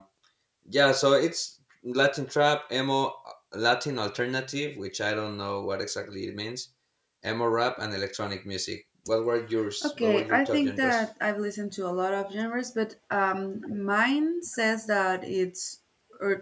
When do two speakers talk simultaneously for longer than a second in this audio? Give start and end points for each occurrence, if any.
9.8-11.0

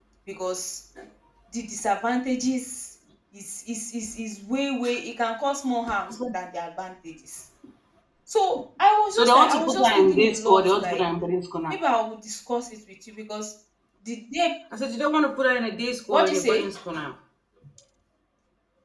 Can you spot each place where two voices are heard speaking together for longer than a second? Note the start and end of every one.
9.1-11.0

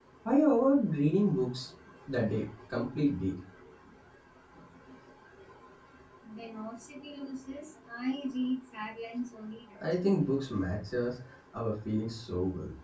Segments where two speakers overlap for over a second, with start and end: none

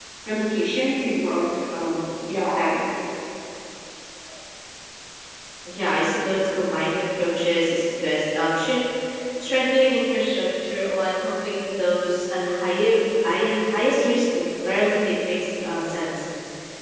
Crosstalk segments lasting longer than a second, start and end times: none

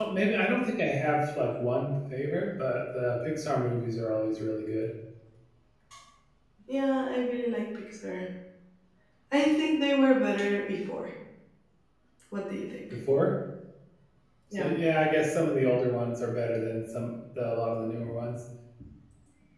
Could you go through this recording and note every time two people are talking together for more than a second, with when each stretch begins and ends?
none

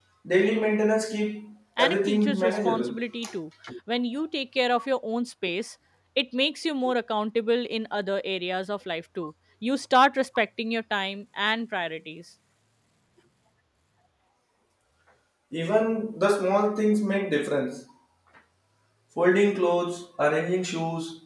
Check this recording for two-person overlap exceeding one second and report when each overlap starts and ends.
1.8-3.0

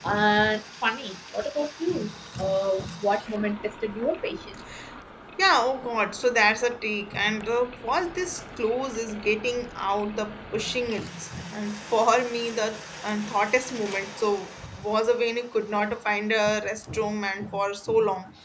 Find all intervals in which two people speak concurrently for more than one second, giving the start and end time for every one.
none

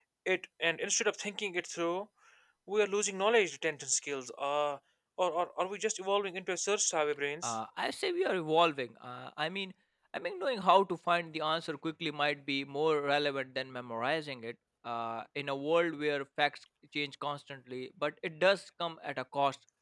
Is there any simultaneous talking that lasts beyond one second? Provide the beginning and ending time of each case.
none

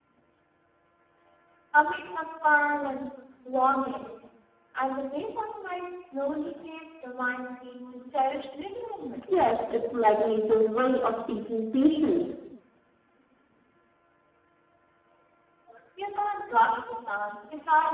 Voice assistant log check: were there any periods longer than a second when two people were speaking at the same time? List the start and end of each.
none

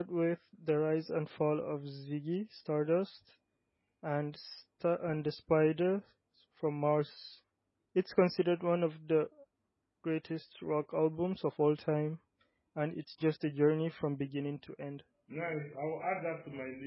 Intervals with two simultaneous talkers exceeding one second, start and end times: none

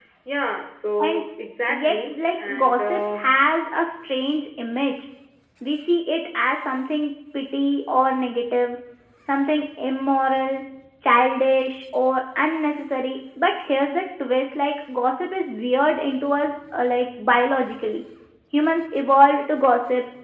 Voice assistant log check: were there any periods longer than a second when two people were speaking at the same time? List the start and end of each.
1.7-3.2

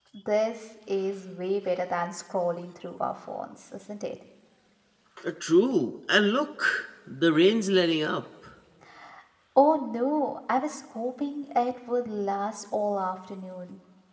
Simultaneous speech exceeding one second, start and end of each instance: none

